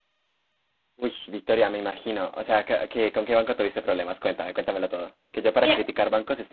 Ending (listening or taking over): listening